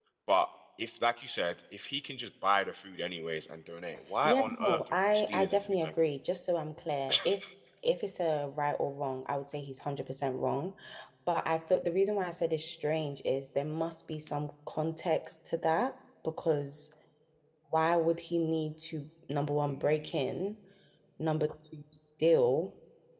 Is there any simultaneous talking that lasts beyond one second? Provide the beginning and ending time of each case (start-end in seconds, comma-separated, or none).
4.2-5.9